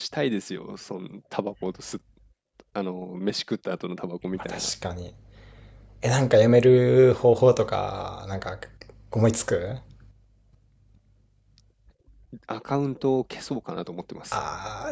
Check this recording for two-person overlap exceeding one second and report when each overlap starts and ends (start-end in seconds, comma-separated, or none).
none